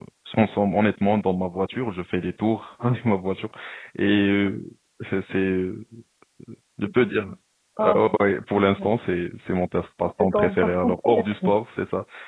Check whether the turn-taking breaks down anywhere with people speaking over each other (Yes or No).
Yes